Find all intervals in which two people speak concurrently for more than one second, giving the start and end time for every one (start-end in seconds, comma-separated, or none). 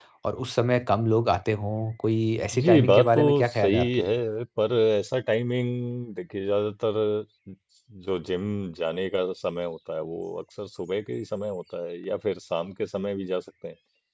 2.6-4.0